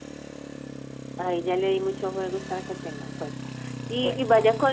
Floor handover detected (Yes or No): No